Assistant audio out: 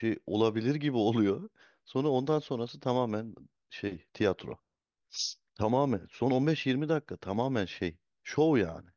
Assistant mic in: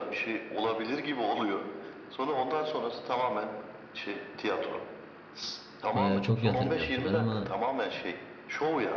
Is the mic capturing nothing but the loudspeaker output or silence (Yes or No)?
No